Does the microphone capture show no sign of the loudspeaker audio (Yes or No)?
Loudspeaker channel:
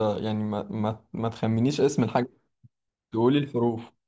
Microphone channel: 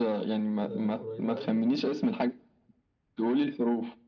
No